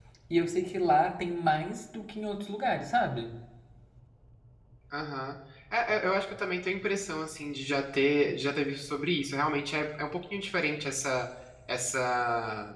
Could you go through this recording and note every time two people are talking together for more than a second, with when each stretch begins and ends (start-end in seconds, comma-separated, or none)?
none